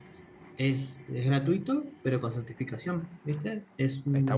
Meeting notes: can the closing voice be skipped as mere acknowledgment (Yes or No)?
No